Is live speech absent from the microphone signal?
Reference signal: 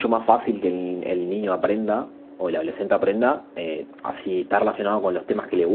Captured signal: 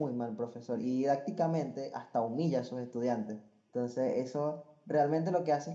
No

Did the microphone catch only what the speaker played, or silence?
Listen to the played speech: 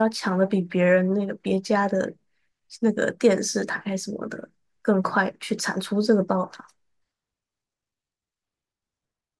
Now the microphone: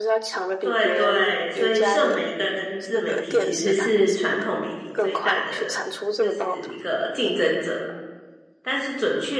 No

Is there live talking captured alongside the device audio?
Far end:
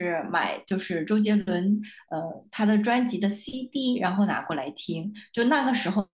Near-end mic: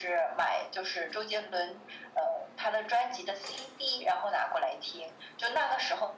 No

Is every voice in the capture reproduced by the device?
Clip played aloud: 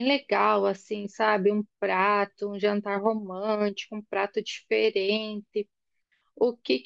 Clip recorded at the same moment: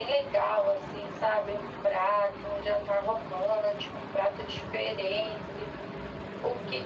Yes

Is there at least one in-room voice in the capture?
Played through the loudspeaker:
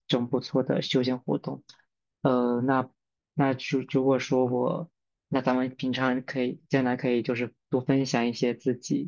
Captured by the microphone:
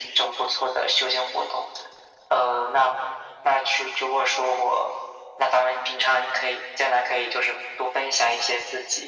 No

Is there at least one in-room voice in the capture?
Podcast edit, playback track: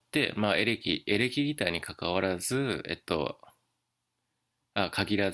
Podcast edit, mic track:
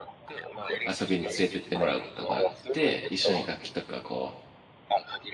Yes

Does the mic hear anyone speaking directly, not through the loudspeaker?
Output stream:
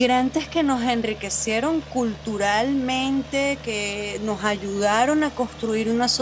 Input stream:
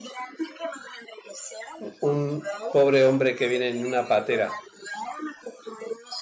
Yes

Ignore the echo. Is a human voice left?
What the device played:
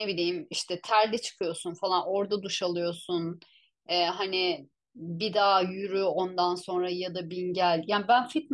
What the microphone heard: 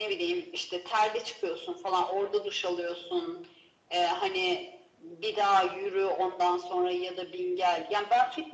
No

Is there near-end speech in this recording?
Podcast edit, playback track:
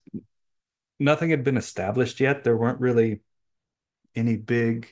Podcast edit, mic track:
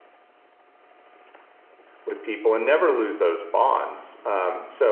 Yes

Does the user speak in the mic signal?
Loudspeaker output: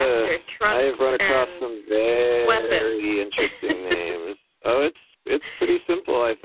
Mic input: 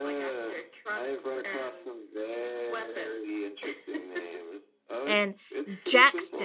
Yes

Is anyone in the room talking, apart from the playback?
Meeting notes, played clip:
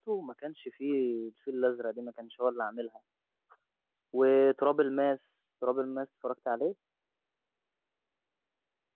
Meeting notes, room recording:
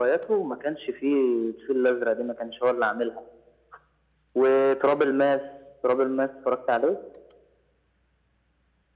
No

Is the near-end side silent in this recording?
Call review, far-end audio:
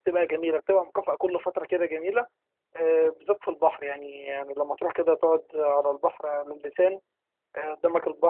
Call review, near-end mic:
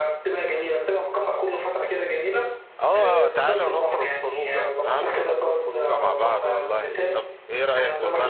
No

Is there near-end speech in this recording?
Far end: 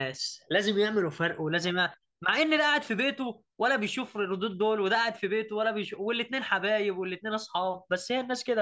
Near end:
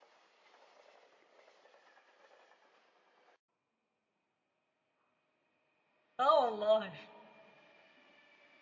Yes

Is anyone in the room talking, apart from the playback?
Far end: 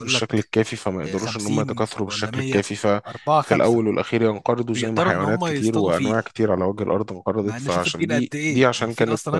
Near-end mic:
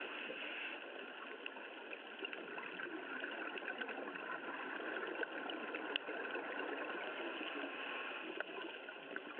No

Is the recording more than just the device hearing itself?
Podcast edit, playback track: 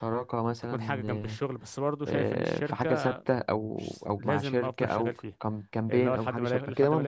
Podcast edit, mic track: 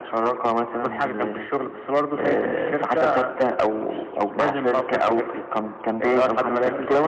No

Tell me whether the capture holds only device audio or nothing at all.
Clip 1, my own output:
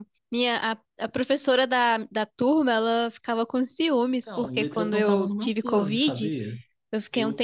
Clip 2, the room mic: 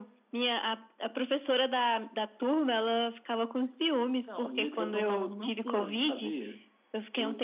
Yes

